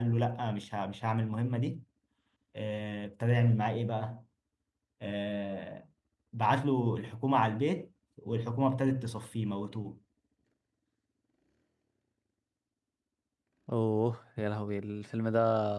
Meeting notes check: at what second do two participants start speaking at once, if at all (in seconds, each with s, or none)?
none